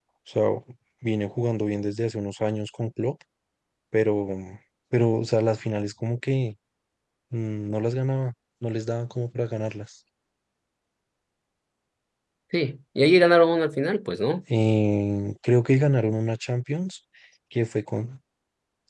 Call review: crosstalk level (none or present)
none